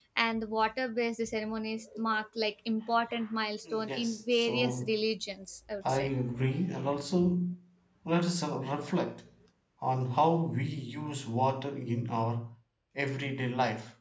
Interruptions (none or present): present